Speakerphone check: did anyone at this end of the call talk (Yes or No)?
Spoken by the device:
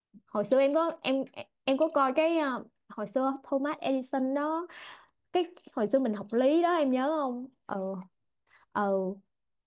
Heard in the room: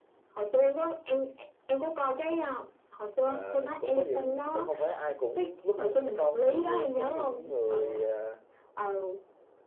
Yes